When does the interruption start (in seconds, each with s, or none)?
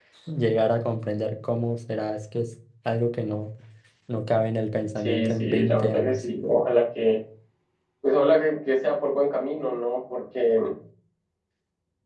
5.0 s